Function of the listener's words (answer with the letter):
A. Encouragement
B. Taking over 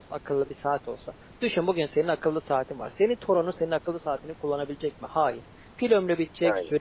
A